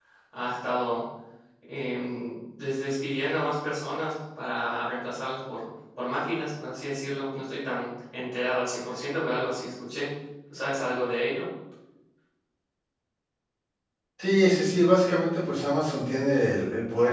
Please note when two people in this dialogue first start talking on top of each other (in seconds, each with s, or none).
none